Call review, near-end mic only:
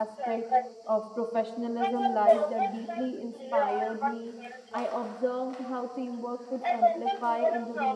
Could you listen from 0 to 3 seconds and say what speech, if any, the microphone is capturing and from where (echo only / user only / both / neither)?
both